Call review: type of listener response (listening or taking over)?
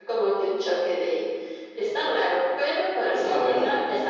listening